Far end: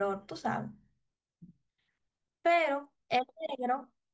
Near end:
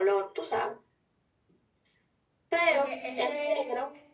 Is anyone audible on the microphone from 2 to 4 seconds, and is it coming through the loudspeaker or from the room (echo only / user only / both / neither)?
both